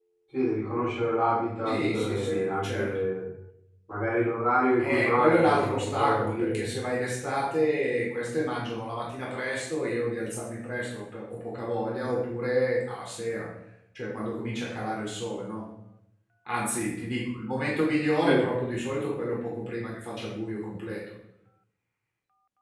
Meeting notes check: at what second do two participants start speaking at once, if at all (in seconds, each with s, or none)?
1.6 s